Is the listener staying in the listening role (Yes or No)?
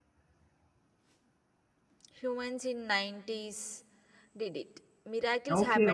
No